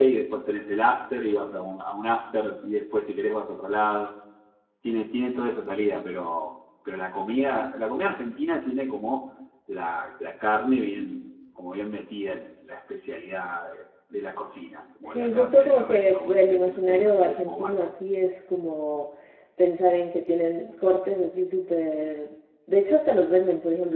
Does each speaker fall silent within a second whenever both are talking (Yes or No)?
No